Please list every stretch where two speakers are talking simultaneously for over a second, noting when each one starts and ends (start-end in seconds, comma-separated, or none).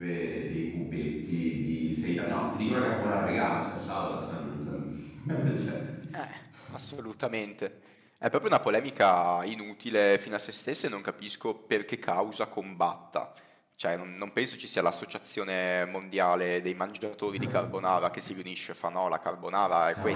none